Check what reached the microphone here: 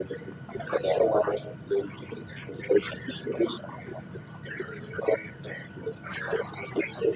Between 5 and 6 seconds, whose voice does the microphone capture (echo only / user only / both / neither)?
echo only